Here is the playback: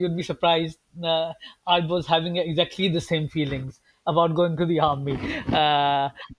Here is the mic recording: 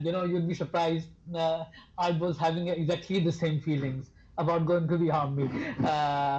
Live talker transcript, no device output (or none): none